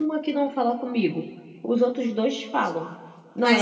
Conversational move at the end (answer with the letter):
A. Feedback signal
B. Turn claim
A